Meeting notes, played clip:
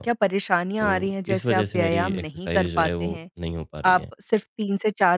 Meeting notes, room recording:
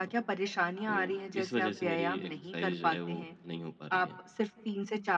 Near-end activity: none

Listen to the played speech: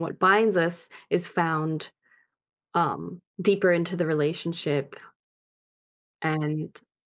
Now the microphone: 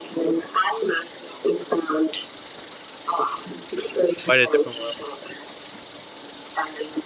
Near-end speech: present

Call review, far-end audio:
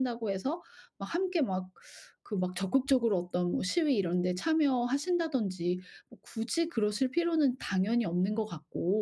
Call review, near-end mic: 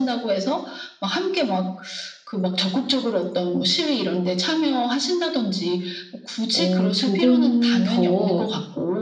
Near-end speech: present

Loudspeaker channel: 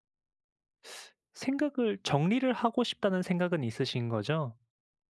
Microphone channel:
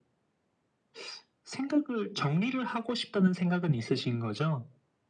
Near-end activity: none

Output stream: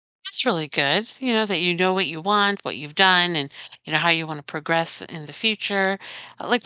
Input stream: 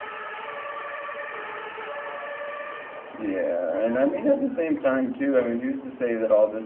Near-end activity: present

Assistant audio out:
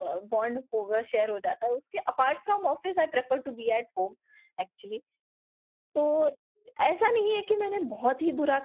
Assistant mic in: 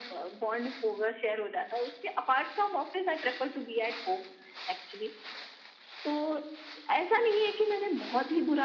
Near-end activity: none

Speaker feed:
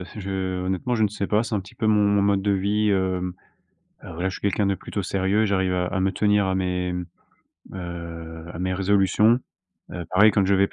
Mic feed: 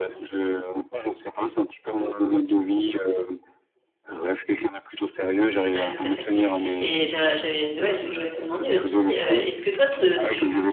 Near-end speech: present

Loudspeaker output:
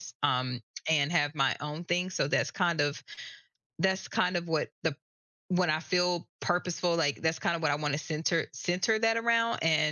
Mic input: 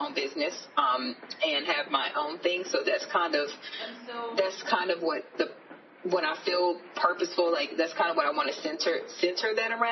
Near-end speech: present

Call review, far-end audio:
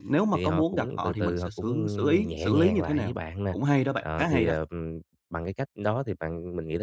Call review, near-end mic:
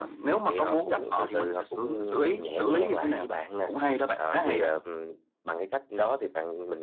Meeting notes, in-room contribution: none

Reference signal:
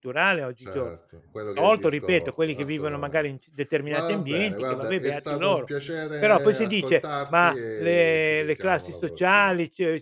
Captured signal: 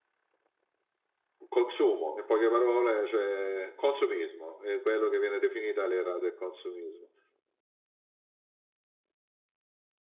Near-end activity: present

